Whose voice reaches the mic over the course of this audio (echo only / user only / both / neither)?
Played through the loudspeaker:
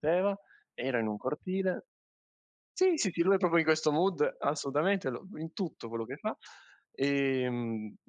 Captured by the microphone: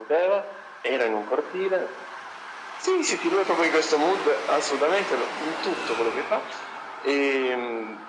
echo only